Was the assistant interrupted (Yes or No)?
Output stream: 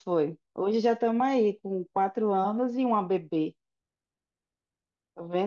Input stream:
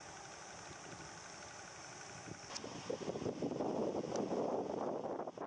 No